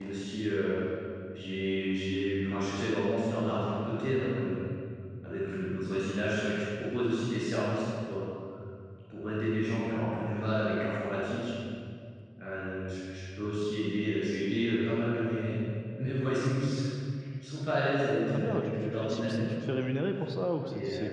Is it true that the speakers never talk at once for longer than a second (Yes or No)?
No